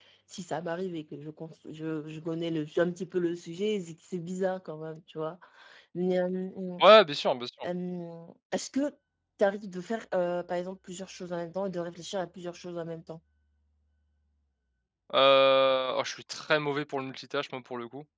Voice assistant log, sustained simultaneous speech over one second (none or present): none